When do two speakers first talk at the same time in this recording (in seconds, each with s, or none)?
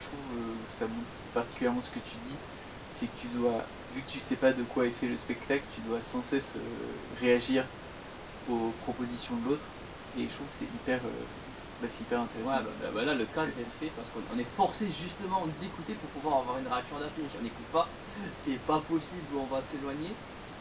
12.4 s